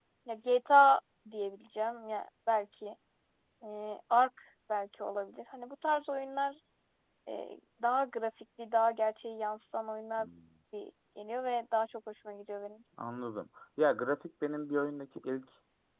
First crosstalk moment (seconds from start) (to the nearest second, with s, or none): none